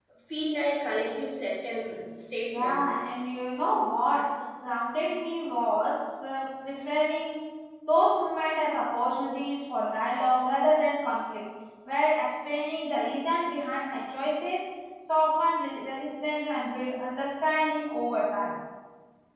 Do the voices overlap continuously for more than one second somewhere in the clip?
No

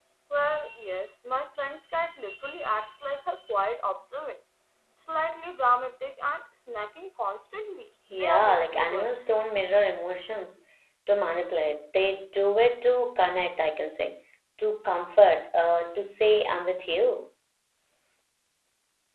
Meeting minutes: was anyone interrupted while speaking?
Yes, from 8.1 s

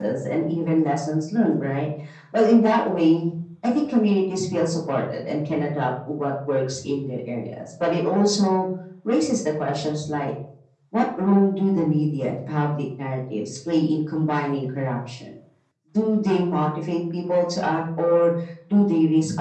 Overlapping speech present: No

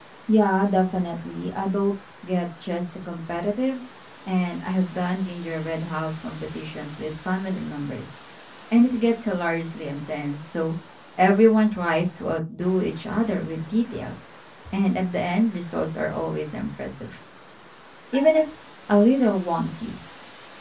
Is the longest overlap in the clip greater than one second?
No

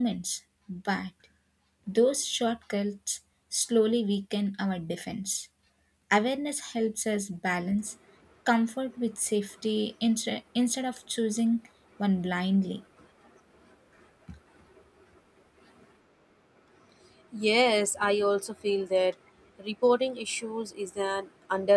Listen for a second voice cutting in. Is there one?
No

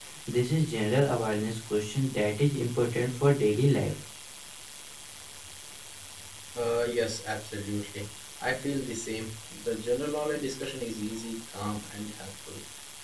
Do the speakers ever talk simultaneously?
No

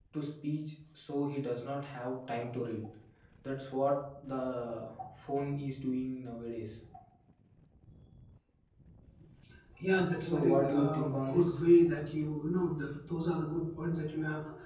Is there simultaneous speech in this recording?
Yes, from 10.2 s

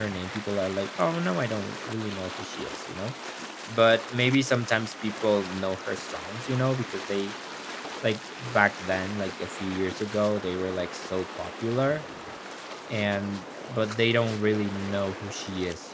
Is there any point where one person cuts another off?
No

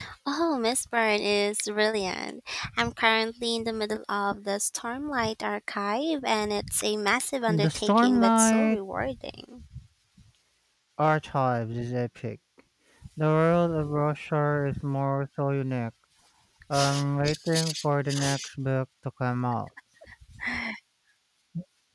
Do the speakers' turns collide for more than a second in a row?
Yes, from 7.5 s

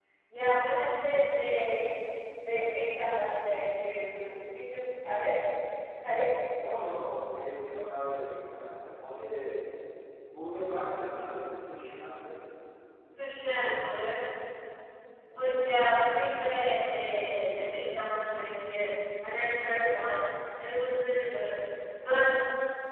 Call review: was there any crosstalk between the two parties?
No

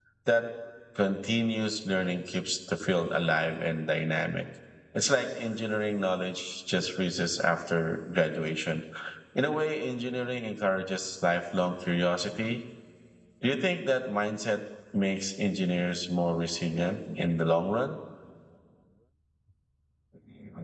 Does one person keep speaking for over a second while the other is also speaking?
No

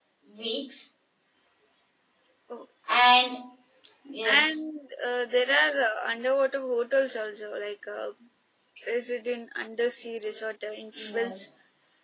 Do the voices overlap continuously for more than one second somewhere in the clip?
No

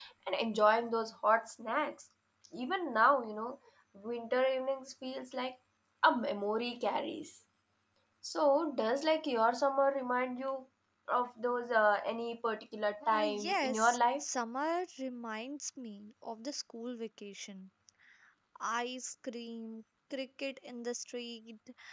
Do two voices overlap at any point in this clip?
Yes, from 13.0 s

